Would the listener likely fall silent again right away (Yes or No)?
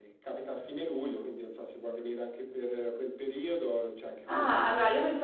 No